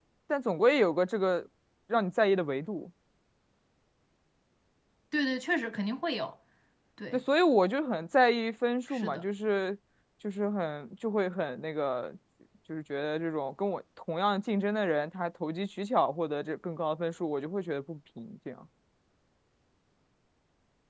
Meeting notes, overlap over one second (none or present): none